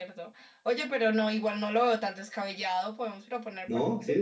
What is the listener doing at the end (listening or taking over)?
taking over